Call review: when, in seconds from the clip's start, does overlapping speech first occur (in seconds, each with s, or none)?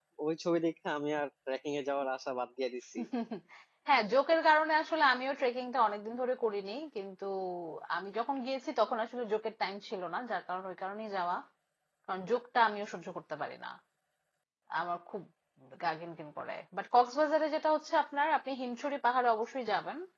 none